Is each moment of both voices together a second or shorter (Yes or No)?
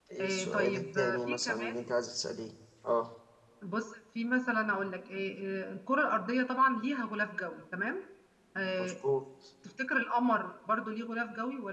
No